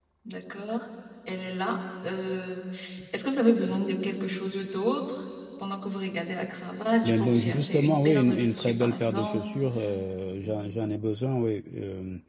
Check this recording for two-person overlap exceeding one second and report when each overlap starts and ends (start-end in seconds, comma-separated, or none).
7.0-9.4